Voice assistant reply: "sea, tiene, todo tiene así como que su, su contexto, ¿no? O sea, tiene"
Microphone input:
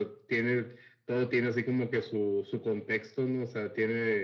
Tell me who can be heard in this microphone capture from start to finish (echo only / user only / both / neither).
echo only